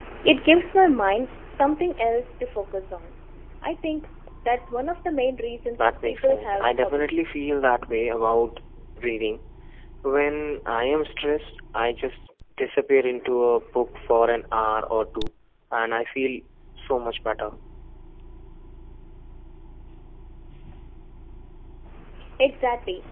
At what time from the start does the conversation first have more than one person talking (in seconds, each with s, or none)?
5.8 s